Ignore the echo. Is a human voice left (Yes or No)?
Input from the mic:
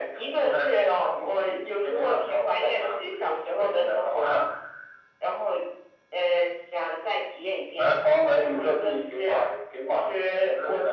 No